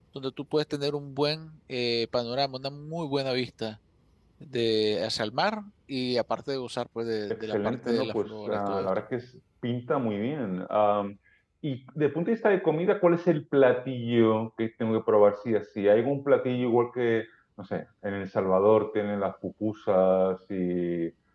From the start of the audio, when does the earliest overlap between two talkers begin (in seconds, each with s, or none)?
7.3 s